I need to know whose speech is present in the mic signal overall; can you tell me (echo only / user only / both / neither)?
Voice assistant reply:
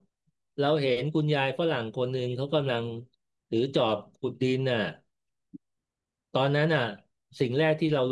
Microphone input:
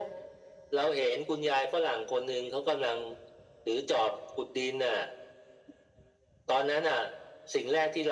echo only